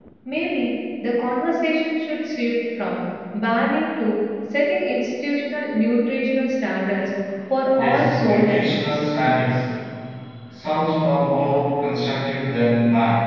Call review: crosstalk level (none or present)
present